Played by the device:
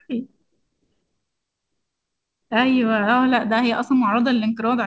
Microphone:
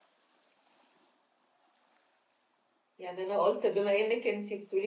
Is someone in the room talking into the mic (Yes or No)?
Yes